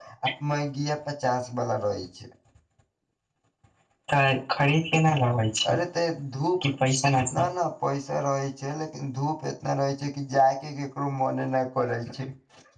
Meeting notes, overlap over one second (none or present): none